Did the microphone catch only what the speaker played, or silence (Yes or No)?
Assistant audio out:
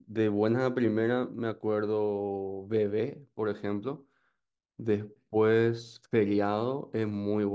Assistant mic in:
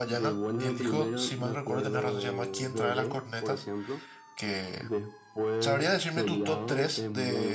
No